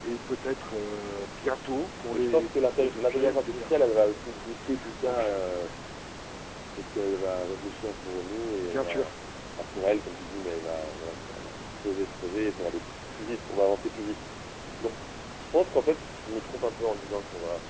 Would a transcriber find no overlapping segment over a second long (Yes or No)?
No